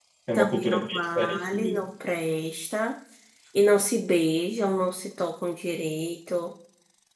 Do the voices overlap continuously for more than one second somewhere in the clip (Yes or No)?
Yes